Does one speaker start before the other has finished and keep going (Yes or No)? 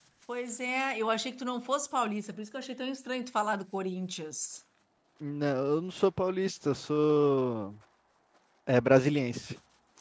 No